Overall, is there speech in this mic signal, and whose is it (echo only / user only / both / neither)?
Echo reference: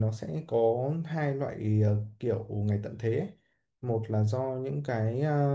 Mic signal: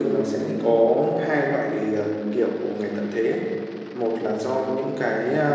echo only